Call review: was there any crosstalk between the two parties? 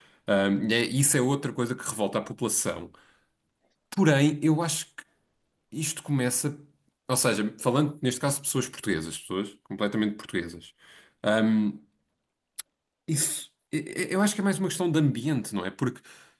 No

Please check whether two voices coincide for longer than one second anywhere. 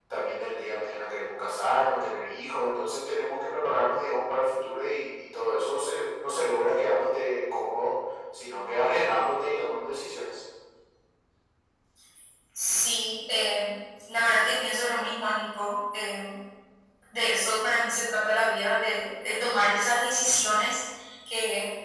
No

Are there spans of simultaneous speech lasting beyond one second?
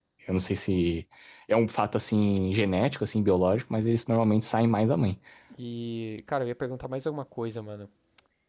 No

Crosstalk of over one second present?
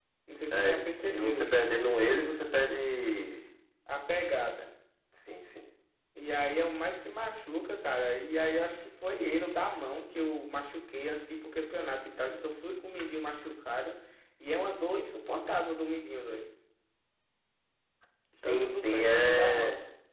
Yes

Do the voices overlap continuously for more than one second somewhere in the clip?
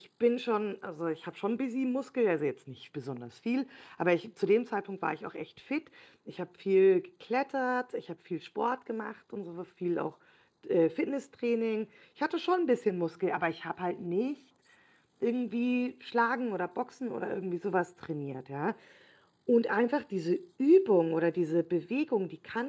No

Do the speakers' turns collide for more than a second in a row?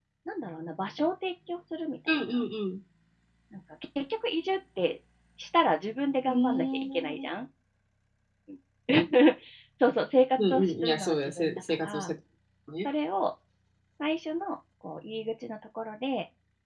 Yes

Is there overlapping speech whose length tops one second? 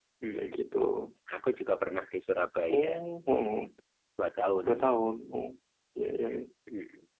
No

